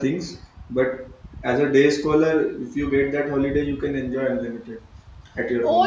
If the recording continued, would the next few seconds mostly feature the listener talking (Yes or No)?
Yes